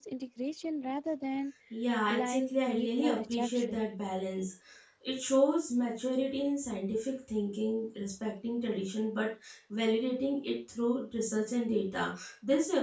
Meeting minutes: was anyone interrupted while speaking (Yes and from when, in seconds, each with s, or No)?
Yes, from 2.1 s